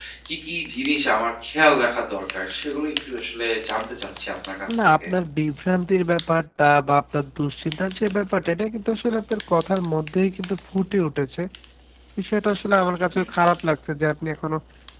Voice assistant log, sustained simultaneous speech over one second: none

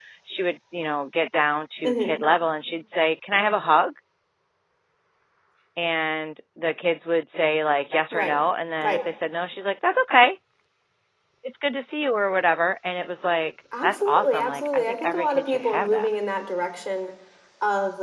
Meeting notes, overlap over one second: present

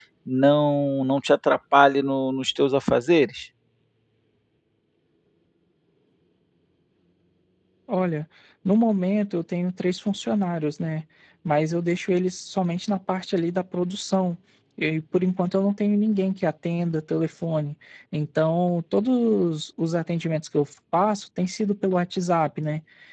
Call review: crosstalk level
none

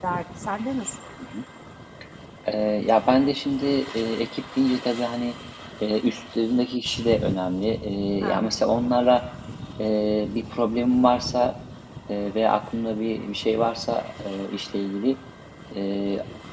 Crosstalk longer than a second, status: none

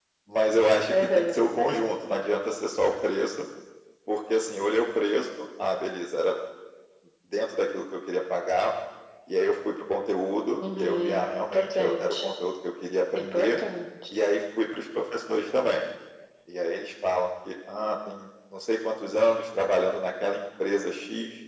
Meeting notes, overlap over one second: present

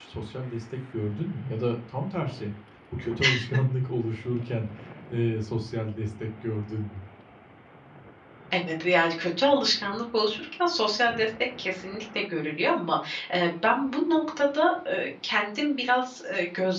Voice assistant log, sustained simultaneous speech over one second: none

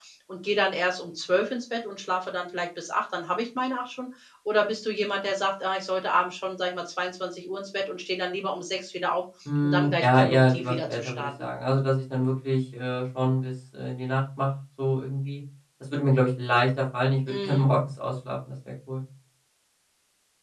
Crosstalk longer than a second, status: present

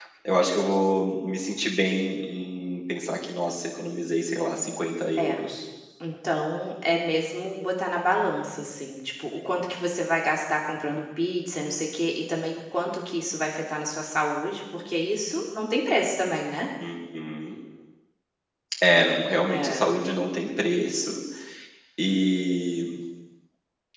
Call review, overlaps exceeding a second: none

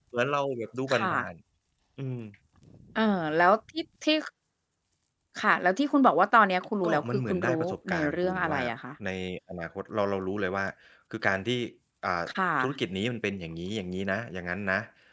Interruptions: present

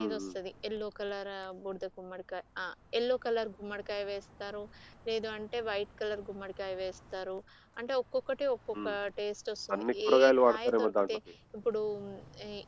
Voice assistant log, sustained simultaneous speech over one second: present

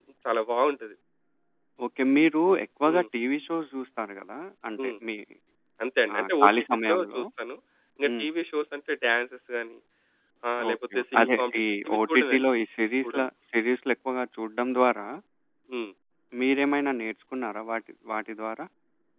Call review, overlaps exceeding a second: present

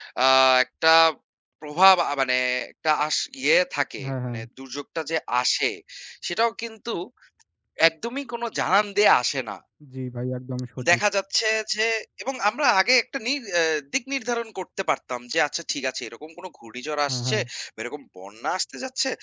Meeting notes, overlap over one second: none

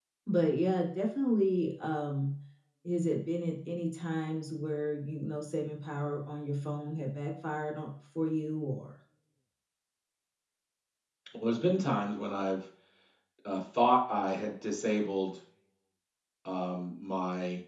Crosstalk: none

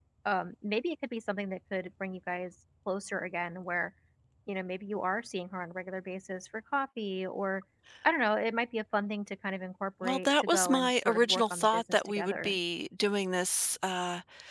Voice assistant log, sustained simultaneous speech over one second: present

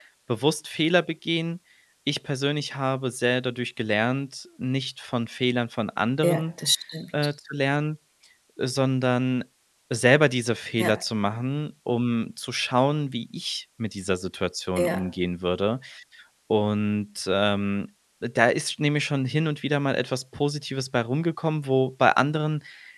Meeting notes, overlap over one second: none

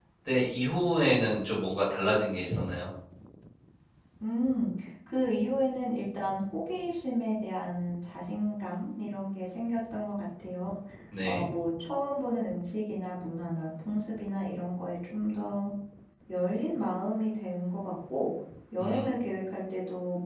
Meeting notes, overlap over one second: none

